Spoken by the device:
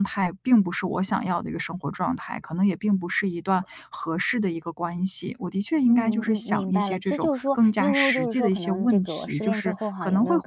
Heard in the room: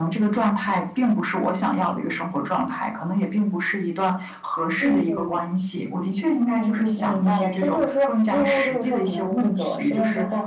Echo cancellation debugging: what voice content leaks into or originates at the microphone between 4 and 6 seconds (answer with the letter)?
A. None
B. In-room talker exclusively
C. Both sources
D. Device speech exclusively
C